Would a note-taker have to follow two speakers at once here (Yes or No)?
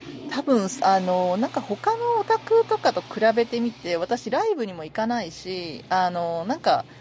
No